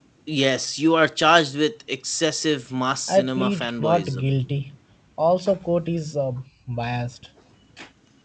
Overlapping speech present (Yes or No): Yes